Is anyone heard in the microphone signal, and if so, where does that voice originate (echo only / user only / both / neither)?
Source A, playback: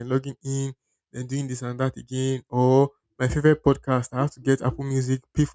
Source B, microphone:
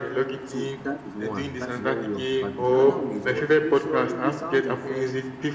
both